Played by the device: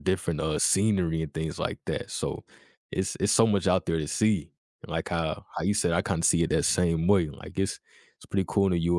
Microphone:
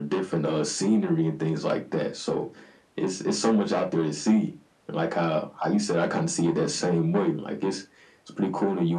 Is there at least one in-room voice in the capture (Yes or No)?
No